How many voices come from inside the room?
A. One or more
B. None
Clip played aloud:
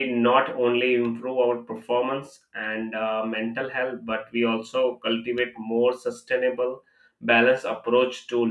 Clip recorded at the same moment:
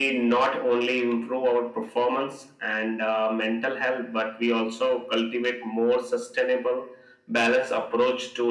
B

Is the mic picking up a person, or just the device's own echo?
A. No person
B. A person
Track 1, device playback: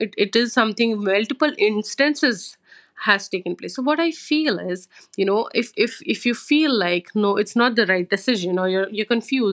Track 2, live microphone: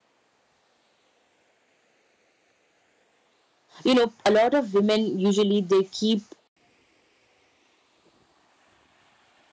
B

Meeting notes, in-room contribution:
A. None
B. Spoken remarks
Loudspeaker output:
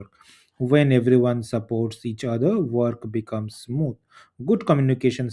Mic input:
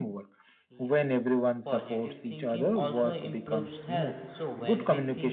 B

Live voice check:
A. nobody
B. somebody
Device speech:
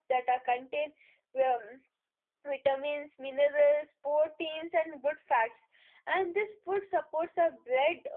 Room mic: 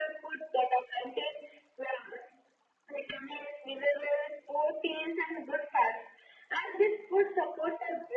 A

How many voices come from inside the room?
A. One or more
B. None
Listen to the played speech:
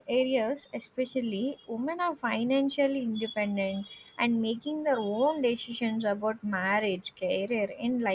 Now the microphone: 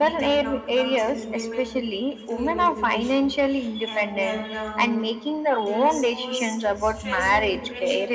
A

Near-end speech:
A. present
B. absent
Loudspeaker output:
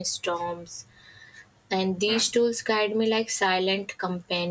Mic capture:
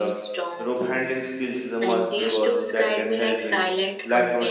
A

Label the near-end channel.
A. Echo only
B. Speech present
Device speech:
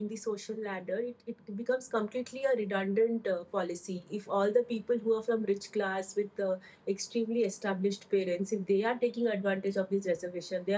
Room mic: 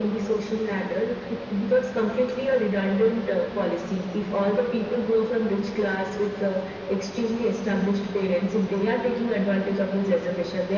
A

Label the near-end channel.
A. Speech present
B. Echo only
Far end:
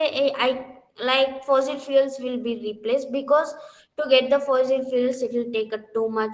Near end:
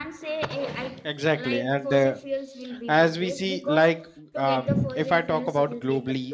A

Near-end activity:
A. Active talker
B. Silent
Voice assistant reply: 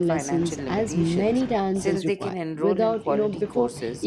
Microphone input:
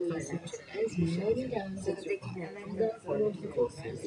A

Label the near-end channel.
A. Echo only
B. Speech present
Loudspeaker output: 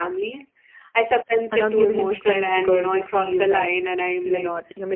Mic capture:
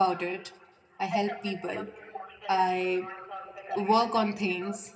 B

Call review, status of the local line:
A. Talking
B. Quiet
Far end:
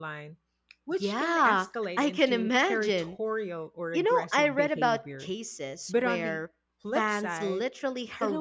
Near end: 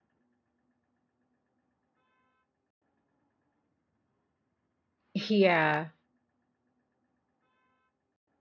A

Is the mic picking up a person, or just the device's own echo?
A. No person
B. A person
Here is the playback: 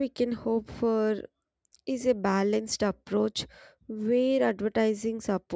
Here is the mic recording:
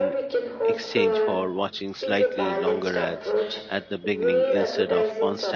B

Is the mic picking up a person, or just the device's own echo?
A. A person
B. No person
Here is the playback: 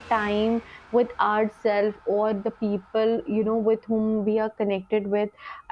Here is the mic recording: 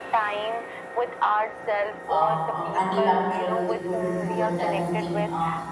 A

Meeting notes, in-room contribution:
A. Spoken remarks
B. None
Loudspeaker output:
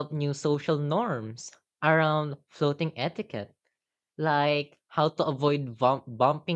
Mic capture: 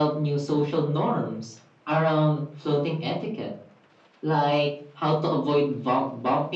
B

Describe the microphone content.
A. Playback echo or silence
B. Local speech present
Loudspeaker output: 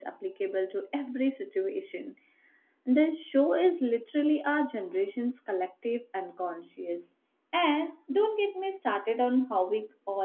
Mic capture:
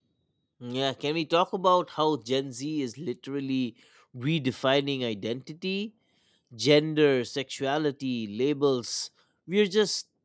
B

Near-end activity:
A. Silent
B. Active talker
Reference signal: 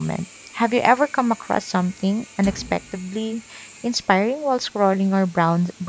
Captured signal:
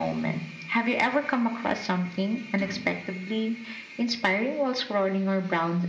A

